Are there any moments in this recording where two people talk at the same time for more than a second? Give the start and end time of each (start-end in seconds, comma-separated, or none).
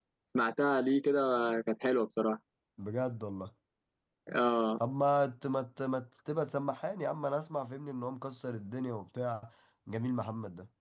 none